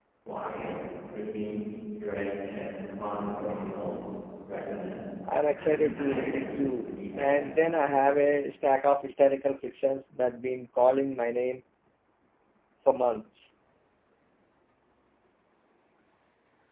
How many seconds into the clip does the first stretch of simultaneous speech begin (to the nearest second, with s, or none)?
6 s